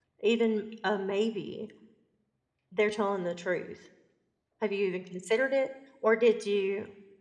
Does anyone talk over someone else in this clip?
No

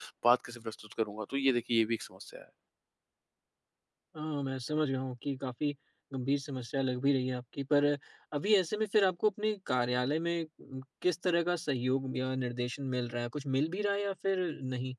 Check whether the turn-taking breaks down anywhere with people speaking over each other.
No

